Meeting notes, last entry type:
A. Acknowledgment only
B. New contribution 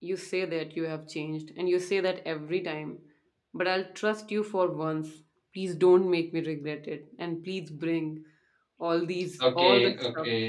B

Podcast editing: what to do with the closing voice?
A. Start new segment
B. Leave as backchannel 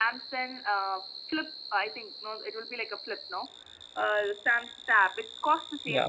B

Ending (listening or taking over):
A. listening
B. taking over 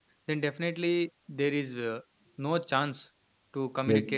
A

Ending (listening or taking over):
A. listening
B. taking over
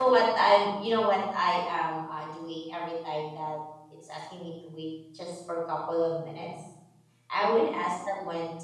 A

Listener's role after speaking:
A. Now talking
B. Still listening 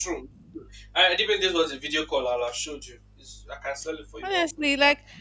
A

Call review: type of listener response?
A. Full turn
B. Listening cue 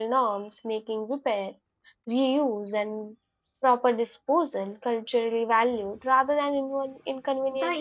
A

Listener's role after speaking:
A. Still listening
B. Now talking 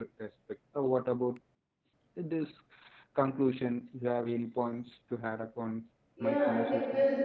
B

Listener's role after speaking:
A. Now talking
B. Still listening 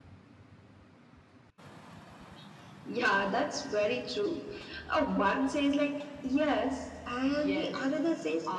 A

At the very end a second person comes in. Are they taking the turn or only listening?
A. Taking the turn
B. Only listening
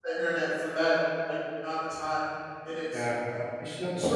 A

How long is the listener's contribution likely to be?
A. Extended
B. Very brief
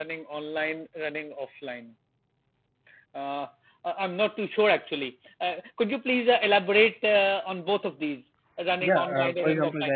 A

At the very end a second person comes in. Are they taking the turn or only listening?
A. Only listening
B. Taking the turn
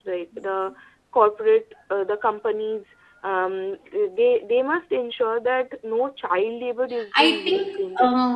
B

